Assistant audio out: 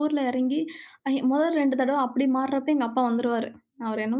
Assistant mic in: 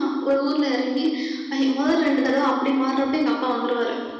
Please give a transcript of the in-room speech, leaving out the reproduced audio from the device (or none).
none